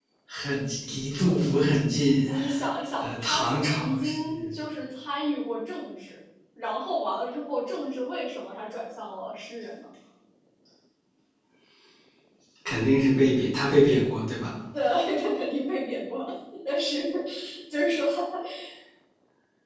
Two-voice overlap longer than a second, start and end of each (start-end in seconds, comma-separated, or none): 3.0-4.5